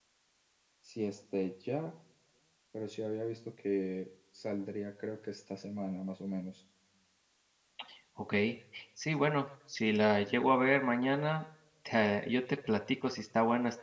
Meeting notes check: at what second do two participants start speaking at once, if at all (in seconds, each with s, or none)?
none